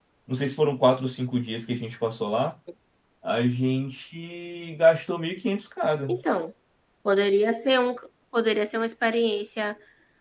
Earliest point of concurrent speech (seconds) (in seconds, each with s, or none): none